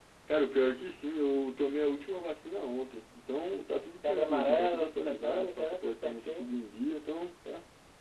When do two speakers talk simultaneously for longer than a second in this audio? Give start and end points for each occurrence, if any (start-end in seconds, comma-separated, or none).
4.0-6.5